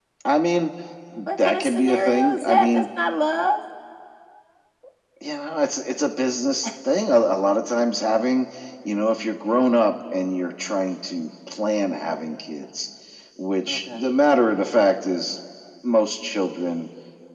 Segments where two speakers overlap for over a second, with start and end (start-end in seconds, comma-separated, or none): 1.4-2.8